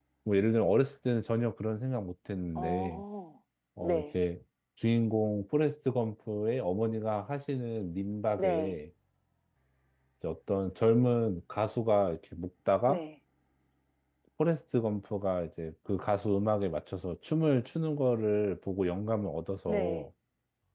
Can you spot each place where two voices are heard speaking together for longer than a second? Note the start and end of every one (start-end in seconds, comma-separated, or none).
none